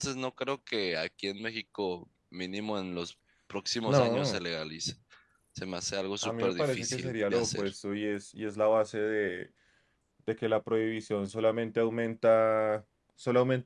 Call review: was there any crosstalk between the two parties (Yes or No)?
Yes